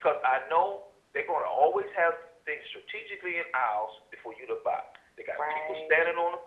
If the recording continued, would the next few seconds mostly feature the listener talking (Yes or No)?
No